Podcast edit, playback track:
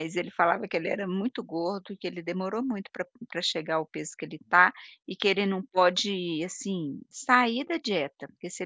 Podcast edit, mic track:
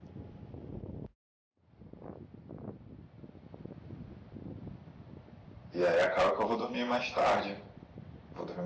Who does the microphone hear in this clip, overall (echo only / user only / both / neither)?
user only